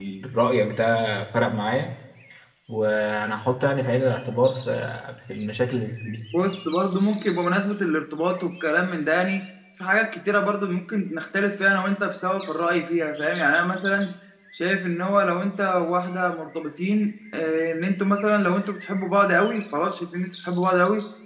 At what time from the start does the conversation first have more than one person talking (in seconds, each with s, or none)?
none